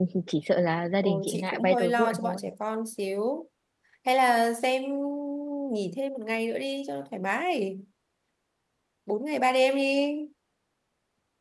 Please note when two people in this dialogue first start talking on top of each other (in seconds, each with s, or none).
1.0 s